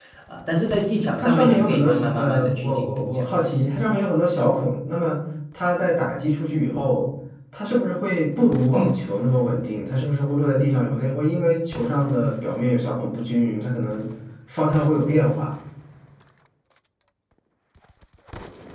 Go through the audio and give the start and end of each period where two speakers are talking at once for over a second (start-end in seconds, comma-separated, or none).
1.2-3.5